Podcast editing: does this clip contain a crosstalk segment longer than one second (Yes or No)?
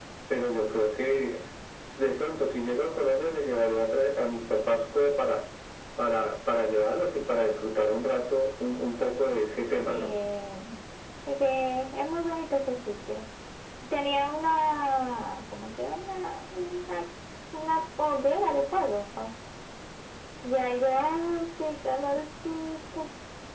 No